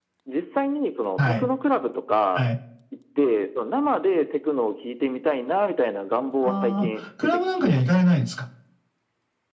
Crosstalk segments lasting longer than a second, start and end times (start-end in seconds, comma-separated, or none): 6.4-8.1